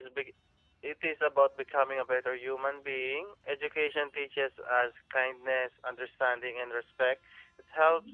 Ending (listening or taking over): listening